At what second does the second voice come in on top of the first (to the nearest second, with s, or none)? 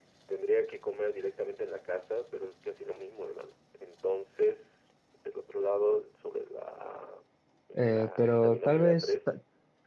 8 s